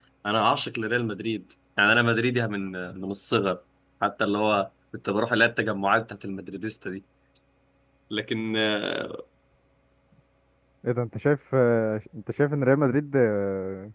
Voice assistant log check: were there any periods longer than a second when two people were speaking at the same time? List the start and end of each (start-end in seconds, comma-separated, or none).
none